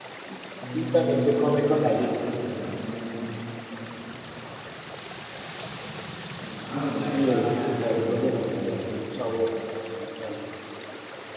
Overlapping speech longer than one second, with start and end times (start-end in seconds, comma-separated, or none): 0.7-2.2, 6.9-9.2